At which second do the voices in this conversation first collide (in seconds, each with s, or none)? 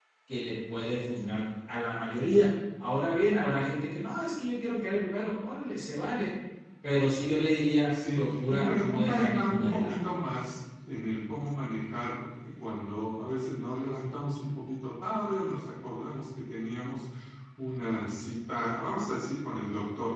7.9 s